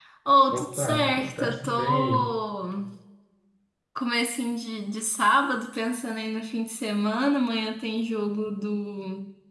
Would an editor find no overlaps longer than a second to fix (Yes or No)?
No